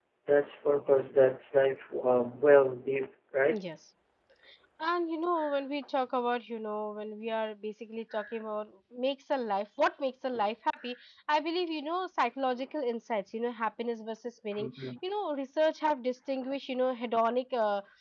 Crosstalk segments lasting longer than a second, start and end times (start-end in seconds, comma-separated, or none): none